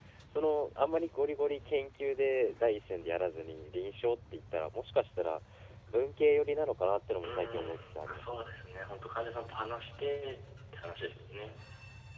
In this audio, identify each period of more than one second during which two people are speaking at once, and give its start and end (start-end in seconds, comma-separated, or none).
7.2-8.4